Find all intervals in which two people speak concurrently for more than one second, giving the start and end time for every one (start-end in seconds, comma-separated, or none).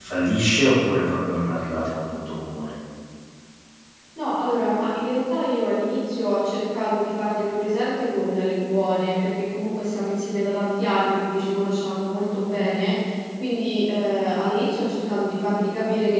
none